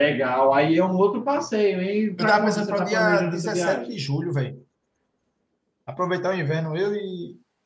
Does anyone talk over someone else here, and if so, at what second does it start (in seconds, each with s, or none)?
2.2 s